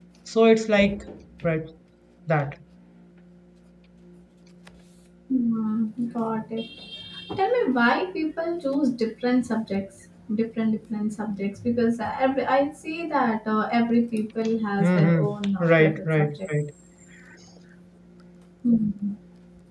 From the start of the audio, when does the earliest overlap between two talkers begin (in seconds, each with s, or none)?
14.8 s